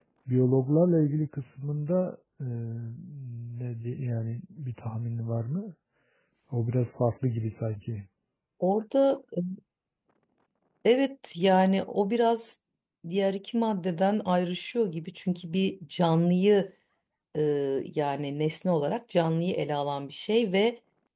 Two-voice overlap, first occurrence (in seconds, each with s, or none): none